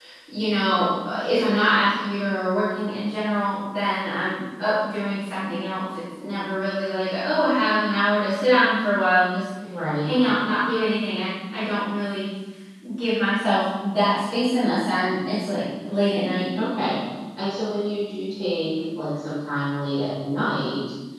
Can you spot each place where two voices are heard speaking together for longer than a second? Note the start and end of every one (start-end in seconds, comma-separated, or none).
none